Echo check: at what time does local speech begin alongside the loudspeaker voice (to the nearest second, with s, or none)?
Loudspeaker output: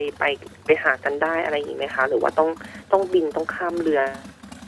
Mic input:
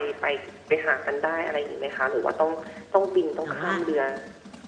3 s